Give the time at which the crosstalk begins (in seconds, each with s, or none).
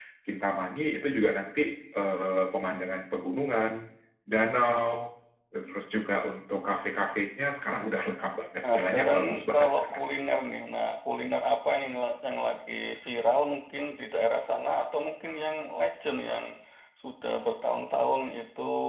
8.6 s